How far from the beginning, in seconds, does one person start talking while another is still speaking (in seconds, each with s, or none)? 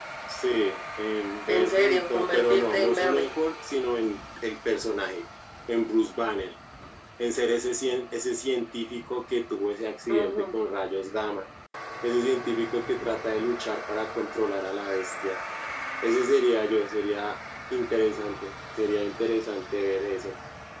1.5 s